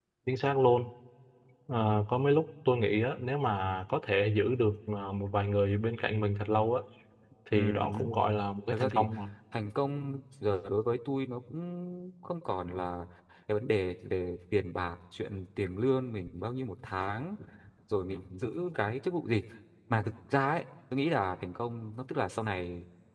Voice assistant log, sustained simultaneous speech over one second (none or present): none